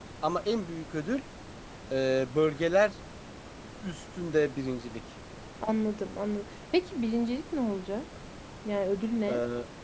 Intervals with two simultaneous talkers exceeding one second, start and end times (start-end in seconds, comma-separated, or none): none